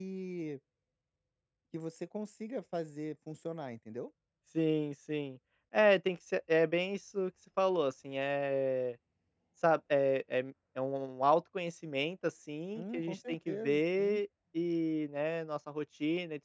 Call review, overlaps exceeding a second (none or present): present